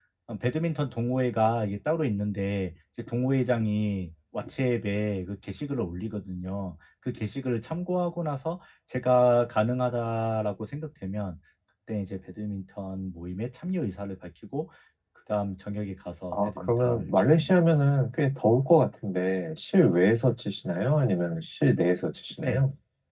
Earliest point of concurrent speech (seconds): 16.3 s

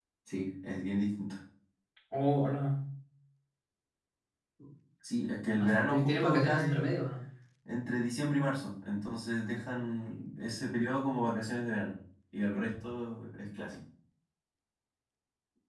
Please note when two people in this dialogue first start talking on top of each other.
5.6 s

